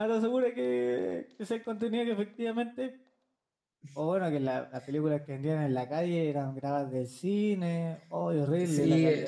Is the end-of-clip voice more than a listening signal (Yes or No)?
Yes